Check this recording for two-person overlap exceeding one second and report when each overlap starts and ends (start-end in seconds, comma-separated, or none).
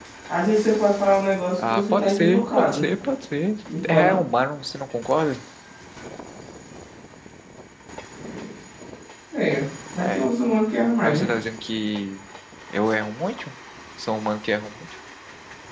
1.6-2.8